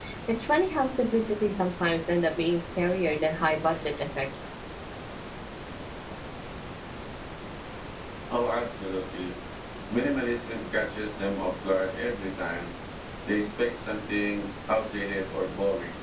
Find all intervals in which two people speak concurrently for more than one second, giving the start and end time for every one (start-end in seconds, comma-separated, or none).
none